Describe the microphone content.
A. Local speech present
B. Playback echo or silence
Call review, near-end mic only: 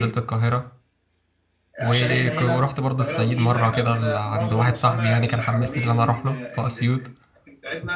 A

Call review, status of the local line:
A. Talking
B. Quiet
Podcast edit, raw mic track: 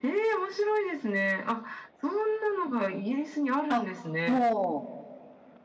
A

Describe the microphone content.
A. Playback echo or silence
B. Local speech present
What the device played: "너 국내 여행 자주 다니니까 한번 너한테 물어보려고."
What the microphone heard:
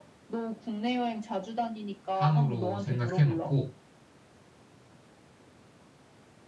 B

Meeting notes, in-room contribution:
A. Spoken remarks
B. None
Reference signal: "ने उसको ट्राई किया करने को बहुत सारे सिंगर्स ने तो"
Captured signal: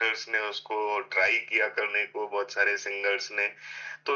B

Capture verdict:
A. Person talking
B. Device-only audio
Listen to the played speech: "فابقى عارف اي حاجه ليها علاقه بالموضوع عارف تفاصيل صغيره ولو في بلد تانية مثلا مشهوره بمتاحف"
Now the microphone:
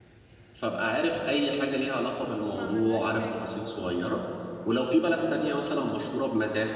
A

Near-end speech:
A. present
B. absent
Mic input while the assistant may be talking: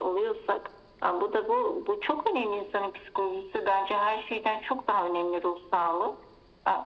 B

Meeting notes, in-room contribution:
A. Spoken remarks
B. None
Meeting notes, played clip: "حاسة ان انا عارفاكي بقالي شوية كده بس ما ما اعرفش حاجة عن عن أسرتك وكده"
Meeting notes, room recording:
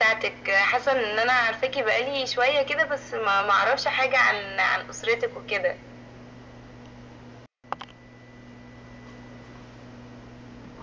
B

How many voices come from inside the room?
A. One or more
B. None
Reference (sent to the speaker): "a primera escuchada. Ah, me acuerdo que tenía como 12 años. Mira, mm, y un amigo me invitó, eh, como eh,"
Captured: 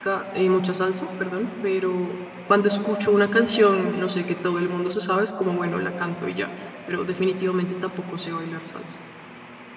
A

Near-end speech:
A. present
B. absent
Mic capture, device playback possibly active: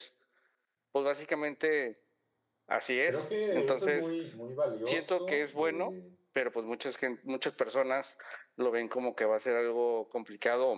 A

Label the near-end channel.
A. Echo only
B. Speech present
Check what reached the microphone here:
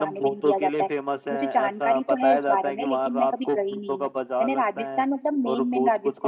A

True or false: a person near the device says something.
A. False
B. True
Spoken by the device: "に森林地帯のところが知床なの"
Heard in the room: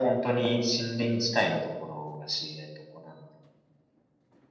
A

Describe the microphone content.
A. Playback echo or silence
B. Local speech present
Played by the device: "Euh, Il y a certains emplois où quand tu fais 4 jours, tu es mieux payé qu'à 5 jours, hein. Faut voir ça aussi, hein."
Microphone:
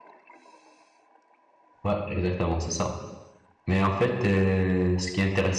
B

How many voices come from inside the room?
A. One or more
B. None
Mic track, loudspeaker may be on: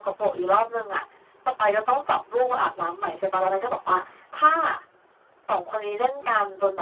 B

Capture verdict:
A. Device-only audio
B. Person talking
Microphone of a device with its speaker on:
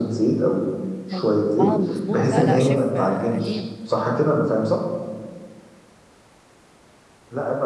B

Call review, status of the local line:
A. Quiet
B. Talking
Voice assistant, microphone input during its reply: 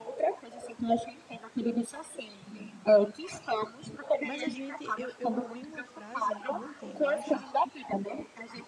B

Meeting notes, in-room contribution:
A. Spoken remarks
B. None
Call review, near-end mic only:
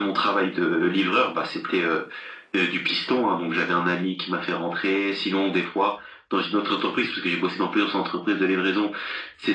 B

